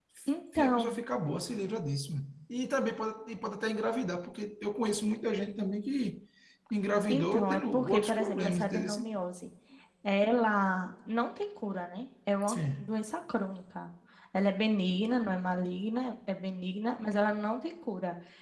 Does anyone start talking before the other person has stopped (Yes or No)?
Yes